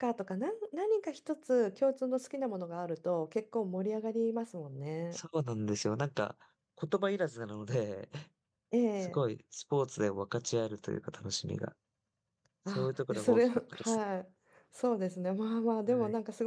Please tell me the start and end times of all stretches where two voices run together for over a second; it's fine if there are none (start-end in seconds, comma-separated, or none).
12.7-14.0